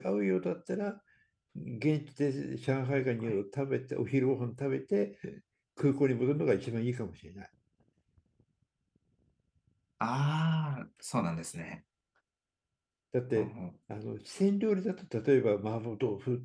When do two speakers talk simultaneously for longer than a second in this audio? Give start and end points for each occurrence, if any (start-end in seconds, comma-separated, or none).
none